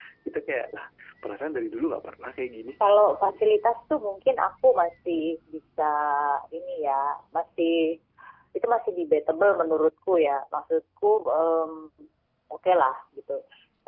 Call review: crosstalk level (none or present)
none